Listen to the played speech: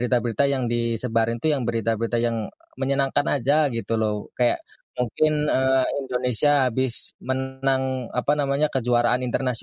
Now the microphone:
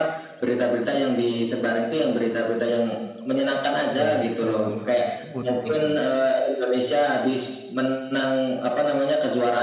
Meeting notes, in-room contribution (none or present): present